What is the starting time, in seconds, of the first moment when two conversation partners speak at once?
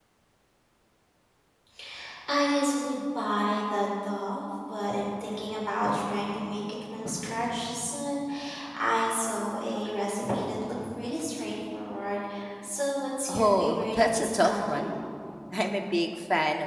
13 s

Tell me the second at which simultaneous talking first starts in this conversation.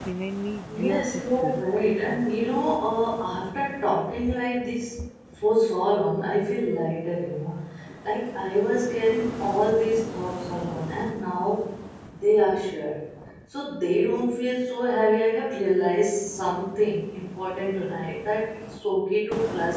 1 s

